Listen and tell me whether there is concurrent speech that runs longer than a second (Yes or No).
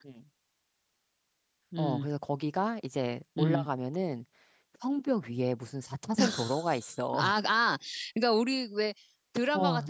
No